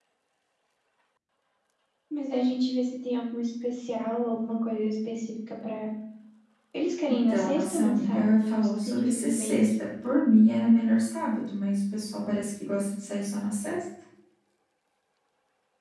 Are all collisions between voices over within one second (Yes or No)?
No